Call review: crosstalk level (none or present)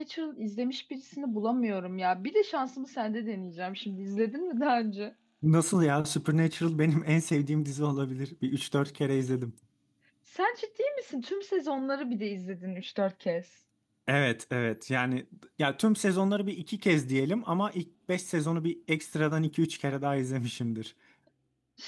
none